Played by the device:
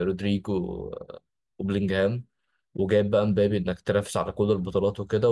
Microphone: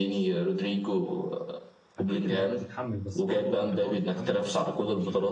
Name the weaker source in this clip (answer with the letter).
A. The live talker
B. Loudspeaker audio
A